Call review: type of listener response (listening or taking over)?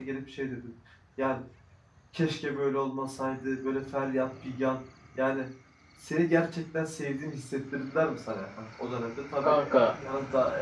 listening